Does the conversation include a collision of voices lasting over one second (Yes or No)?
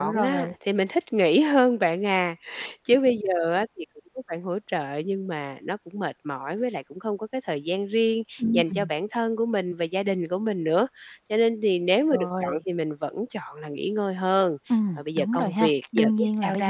Yes